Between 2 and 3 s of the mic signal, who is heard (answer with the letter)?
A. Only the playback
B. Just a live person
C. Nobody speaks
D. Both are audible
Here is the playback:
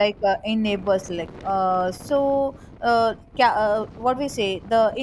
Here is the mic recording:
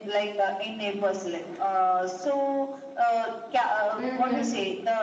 A